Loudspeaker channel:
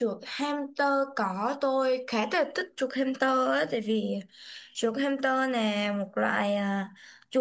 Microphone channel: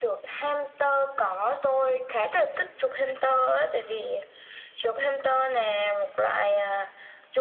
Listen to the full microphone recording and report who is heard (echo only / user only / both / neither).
echo only